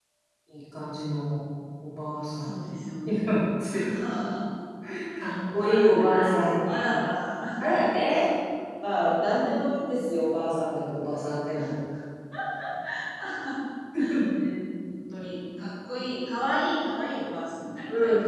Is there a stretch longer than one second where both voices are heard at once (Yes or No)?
Yes